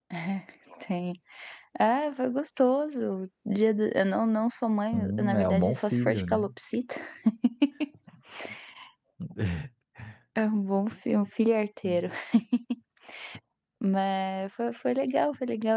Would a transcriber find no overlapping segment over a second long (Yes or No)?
No